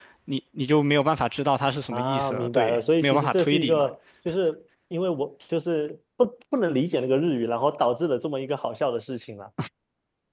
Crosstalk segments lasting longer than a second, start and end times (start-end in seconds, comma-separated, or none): 1.9-3.9